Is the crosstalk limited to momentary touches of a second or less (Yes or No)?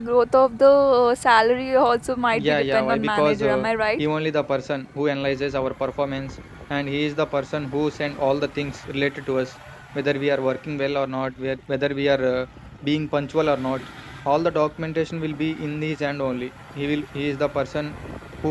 No